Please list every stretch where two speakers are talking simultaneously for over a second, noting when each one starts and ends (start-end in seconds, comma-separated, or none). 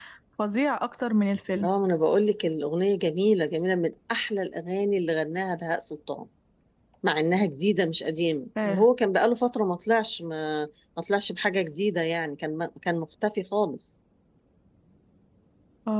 none